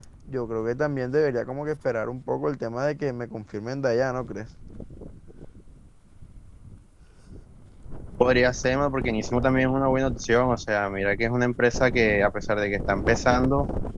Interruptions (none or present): none